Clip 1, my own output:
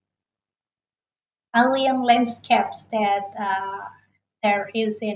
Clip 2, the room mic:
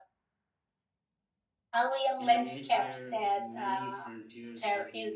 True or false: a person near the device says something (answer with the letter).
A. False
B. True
B